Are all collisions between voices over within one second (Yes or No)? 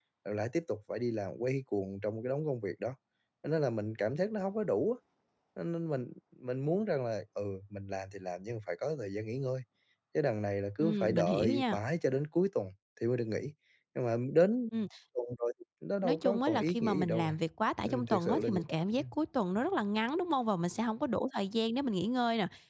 No